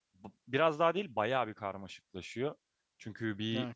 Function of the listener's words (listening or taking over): listening